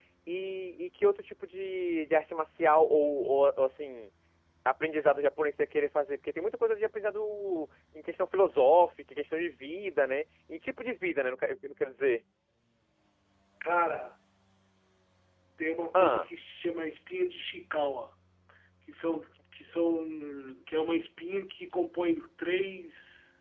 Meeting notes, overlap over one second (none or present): none